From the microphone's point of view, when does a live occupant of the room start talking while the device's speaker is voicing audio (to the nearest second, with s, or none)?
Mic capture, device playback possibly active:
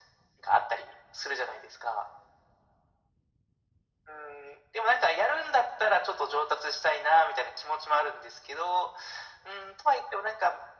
none